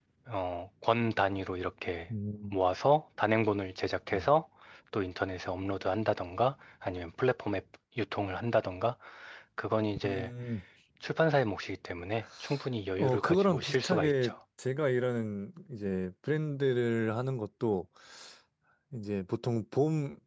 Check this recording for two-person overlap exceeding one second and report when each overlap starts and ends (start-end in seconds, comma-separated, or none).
13.0-14.3